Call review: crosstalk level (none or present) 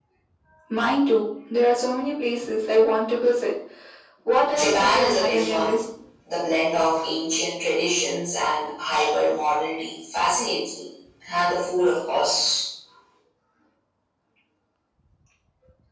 present